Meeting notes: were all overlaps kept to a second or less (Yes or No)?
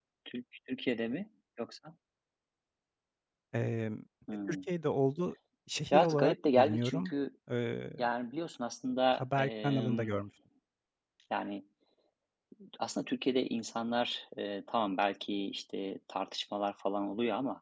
No